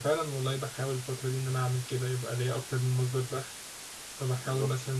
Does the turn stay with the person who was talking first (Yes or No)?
Yes